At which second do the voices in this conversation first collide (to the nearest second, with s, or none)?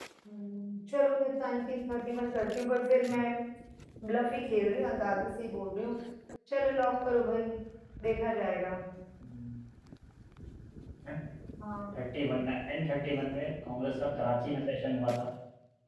none